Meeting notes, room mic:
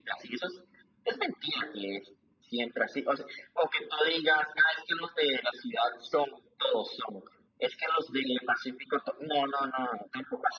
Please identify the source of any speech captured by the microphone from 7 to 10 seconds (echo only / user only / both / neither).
echo only